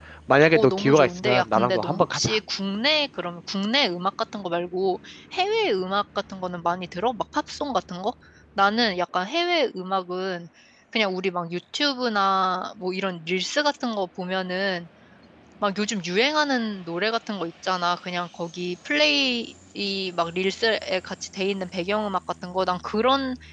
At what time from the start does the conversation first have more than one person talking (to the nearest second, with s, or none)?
1 s